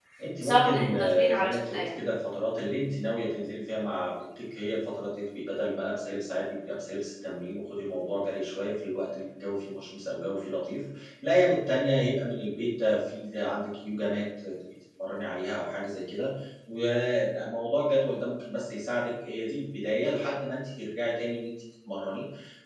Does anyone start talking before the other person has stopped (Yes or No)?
Yes